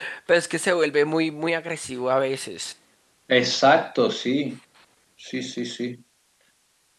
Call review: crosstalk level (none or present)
none